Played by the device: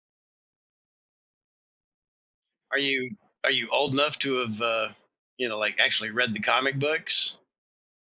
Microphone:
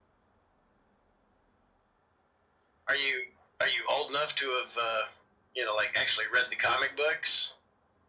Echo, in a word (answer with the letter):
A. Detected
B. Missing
A